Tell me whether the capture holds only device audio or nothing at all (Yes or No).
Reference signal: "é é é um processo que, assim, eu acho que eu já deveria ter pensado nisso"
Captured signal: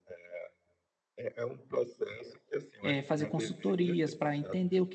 No